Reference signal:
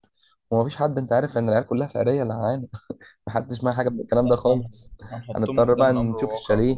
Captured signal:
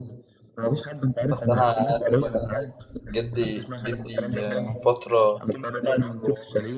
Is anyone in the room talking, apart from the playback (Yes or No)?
Yes